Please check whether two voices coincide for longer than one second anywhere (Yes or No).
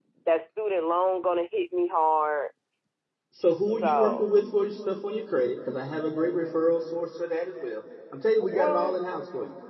No